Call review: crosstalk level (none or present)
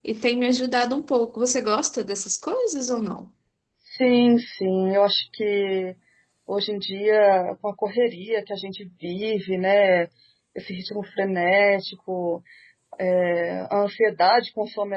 none